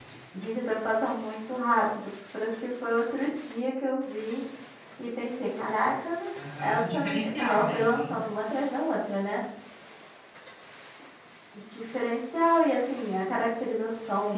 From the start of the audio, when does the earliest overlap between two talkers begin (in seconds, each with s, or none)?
6.6 s